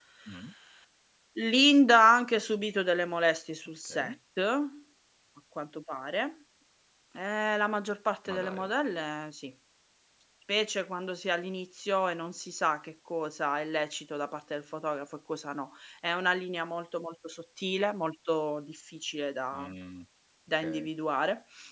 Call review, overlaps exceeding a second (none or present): none